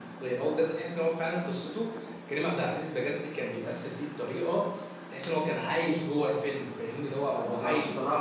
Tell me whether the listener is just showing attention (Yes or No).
No